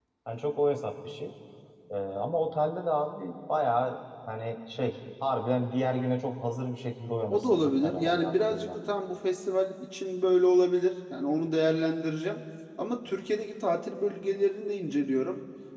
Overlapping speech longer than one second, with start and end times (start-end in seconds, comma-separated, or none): 7.3-8.8